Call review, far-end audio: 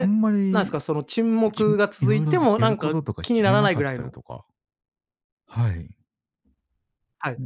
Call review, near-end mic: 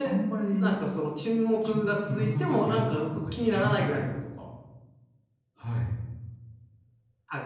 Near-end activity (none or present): none